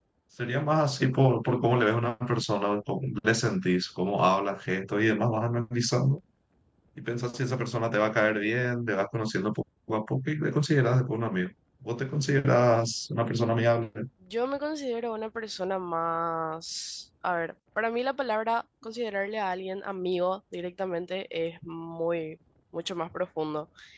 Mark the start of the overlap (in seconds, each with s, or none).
none